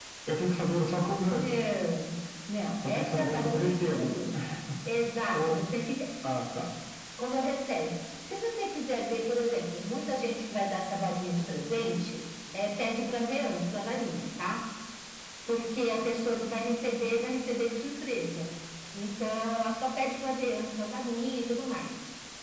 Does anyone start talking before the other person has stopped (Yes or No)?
Yes